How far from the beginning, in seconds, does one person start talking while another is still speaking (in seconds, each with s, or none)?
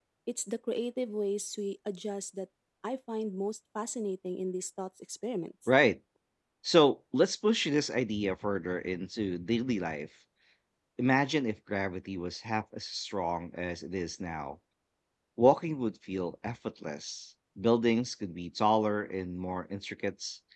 none